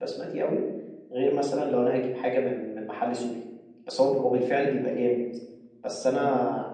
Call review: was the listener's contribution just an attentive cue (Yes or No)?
Yes